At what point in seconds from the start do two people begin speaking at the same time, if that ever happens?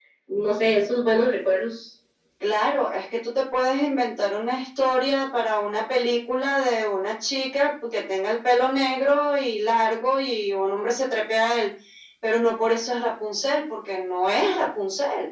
none

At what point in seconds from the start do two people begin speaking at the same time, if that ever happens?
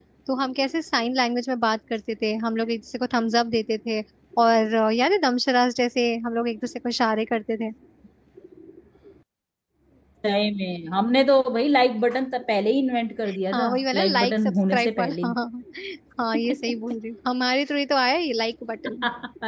14 s

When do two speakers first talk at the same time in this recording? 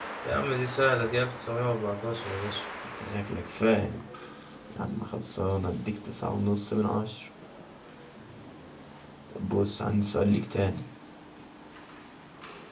none

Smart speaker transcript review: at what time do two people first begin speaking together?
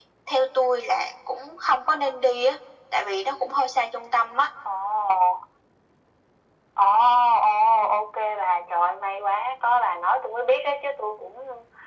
none

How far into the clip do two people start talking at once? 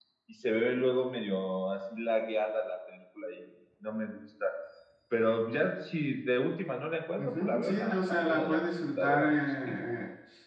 7 s

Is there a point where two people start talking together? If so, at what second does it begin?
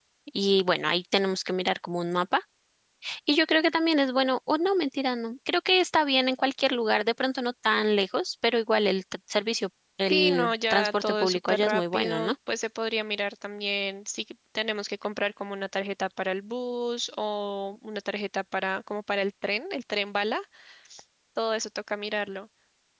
10 s

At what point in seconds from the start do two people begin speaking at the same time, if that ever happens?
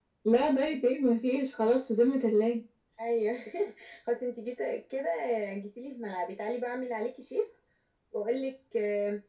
none

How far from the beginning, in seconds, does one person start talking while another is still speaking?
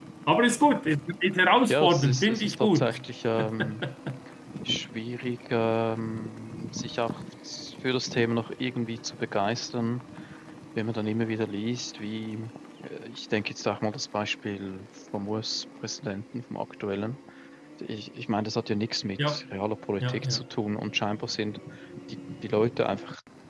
2 s

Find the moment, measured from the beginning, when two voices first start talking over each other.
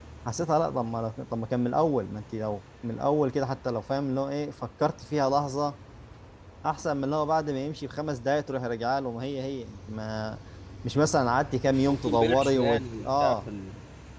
12 s

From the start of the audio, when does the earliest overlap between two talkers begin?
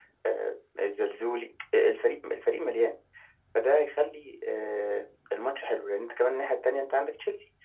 none

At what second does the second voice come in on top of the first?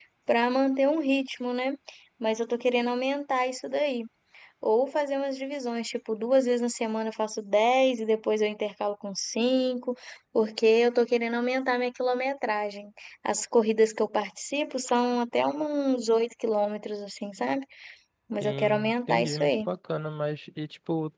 18 s

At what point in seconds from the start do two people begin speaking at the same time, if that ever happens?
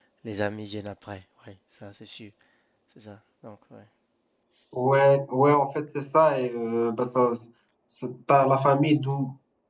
none

